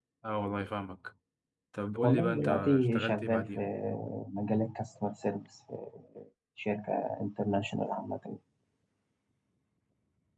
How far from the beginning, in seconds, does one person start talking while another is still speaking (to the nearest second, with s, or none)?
2 s